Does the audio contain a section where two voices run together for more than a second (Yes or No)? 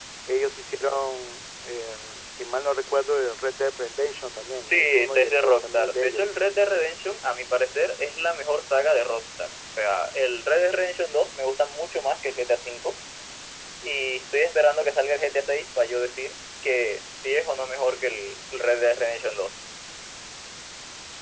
Yes